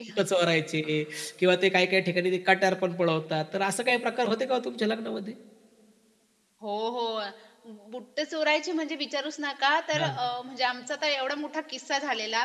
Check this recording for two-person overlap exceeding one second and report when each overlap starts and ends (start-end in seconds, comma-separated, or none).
none